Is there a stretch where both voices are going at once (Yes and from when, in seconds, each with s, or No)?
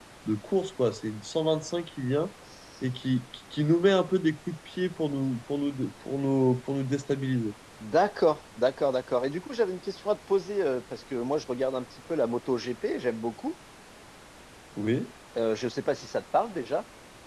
No